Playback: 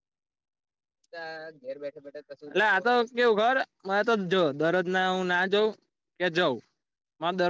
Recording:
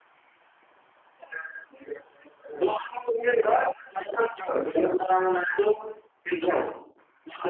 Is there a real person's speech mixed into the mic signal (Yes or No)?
No